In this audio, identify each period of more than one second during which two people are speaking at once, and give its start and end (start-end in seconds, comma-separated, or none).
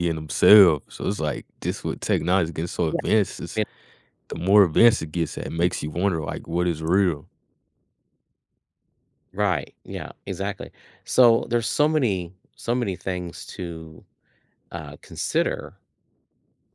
none